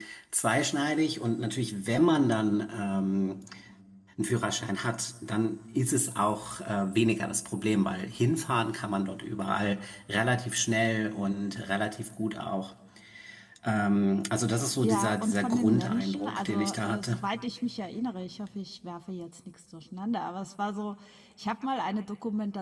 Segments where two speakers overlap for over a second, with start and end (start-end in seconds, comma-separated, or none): 14.8-17.2